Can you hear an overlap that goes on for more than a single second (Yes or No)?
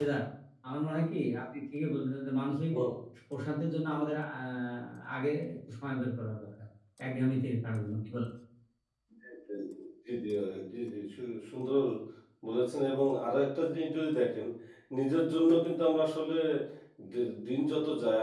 No